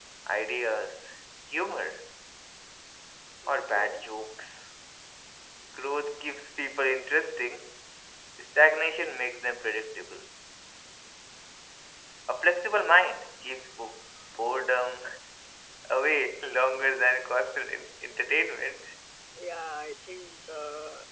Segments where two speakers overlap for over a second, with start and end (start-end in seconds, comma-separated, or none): none